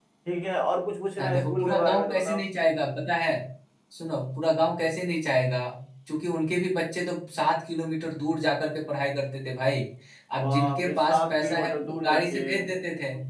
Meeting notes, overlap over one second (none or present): present